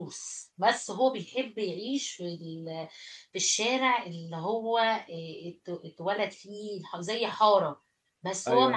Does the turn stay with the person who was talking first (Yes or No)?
Yes